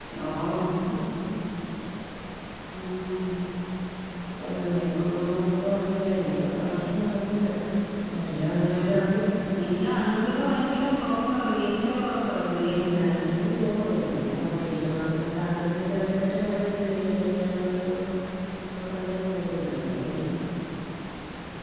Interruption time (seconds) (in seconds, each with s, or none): none